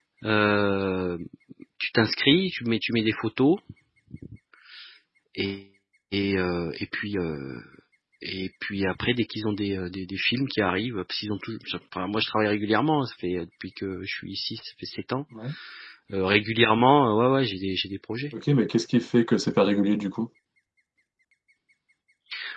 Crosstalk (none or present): none